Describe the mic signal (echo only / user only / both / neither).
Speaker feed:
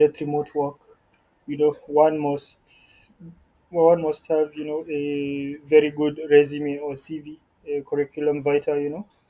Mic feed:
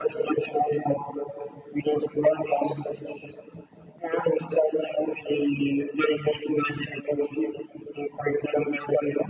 echo only